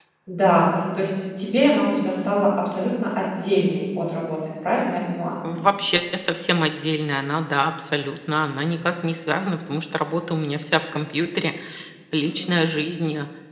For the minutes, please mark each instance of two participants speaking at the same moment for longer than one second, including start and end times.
none

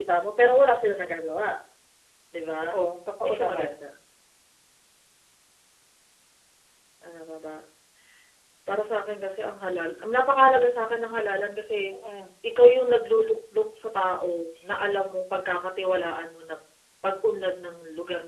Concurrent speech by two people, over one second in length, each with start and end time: none

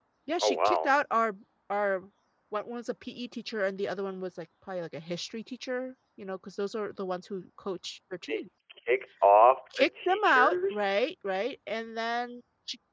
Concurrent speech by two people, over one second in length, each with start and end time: 9.8-11.0

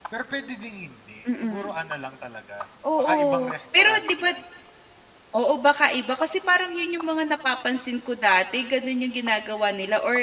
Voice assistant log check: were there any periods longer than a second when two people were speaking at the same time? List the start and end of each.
3.0-4.3

